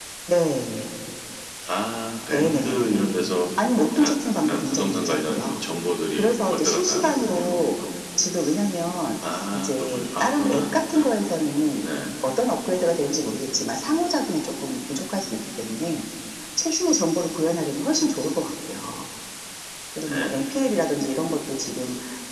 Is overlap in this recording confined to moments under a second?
No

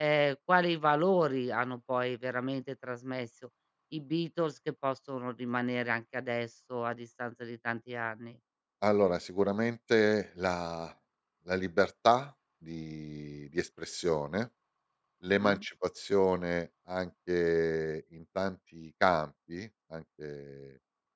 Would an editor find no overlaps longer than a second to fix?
Yes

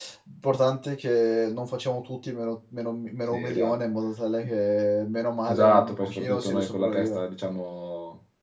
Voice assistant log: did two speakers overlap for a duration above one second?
Yes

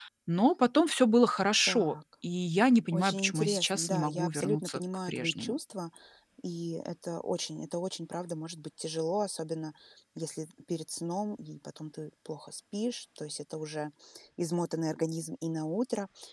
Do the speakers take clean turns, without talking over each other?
No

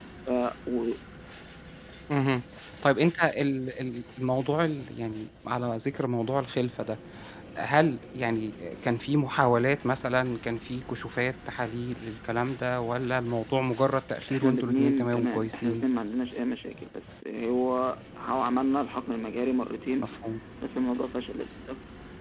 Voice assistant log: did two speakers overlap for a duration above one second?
Yes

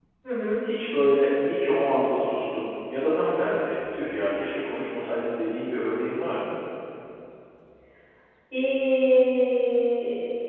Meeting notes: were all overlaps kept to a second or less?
Yes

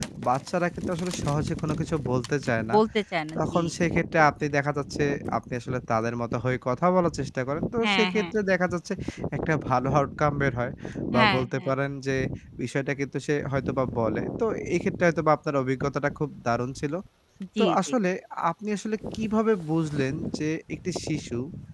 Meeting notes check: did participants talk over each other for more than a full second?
No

